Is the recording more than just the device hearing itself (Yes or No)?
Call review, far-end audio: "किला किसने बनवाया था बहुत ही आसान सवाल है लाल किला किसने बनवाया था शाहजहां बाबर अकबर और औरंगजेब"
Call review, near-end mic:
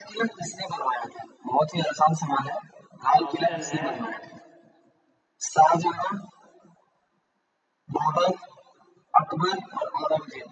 Yes